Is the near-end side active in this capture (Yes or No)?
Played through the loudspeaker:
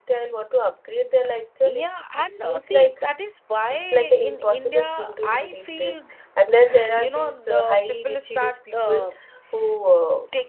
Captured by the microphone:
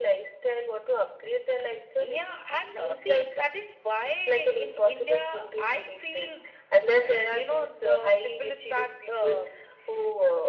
No